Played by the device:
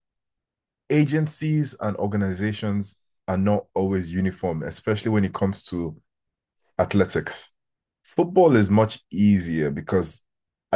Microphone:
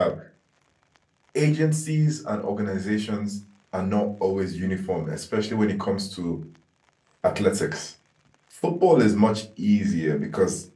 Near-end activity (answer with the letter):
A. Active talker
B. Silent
B